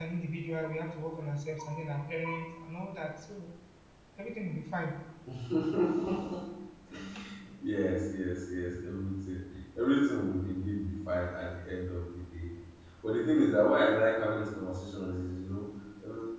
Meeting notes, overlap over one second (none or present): none